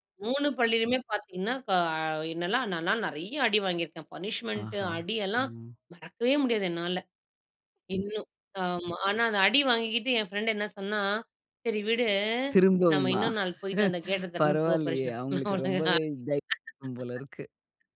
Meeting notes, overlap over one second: present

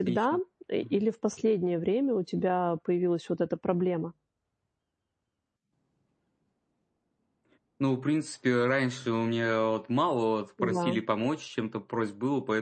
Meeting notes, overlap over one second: none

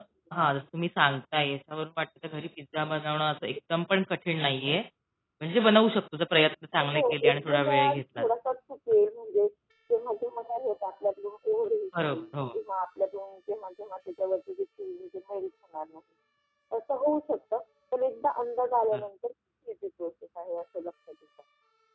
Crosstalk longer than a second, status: present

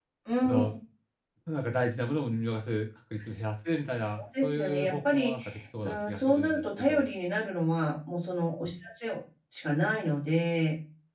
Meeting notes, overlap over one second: present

